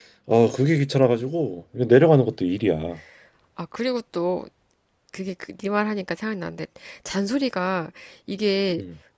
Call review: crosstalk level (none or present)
none